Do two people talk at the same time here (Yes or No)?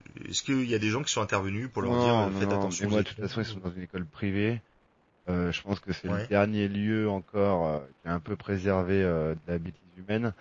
Yes